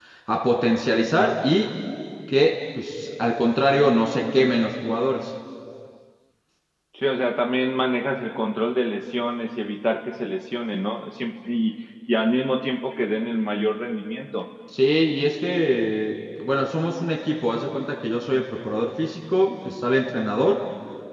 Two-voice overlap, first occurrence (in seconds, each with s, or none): none